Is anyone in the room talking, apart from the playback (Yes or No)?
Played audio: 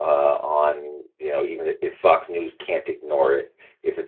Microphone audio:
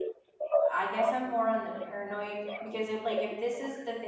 Yes